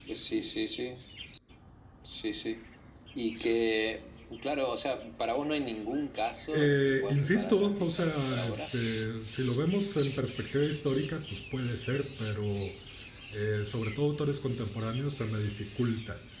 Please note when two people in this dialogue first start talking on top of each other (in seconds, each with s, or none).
6.5 s